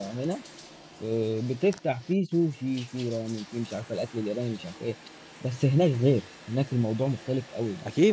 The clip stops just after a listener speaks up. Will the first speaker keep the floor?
No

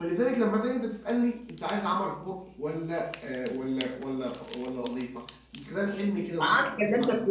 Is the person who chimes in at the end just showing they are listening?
No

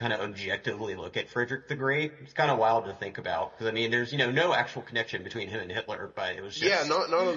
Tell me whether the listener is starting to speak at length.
Yes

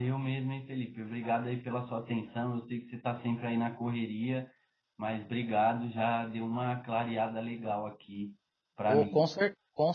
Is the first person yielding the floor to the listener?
Yes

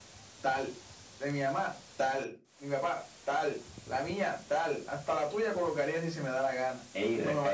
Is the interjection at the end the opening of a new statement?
No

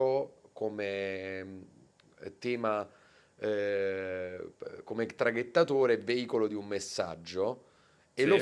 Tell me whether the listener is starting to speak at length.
No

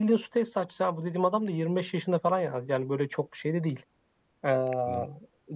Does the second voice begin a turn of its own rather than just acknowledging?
No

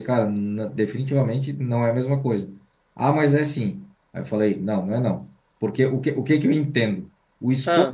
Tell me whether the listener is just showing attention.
Yes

